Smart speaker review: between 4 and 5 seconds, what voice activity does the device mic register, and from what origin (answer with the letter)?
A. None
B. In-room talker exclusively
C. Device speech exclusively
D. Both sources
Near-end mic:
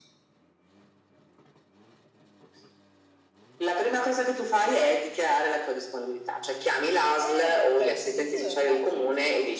C